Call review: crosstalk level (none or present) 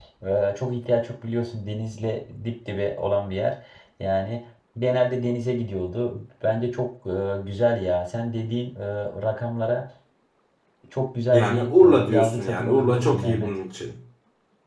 present